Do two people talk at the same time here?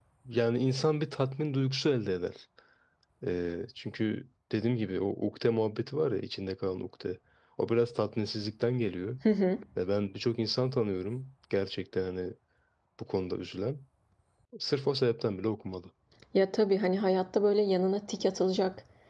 No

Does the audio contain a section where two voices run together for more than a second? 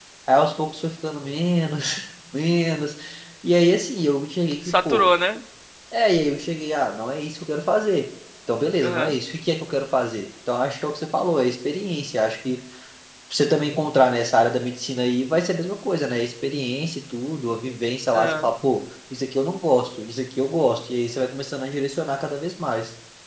No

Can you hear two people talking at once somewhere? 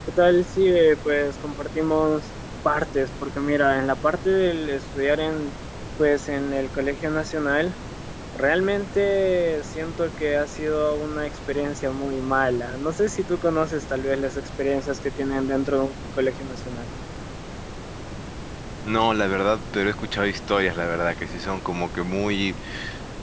No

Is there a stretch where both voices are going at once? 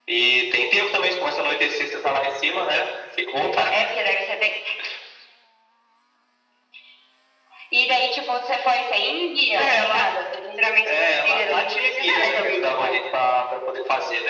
Yes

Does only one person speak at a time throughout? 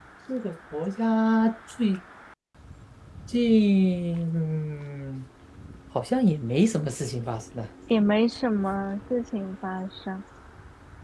Yes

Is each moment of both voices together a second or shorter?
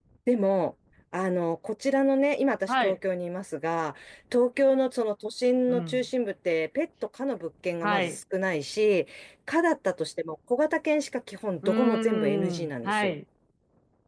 No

